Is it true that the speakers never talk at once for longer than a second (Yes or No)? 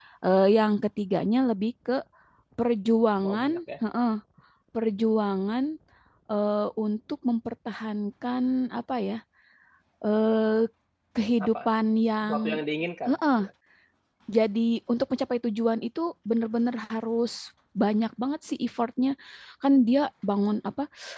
Yes